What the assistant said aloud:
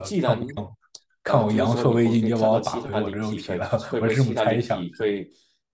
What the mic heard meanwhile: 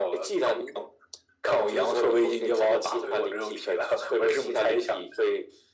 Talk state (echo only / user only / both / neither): echo only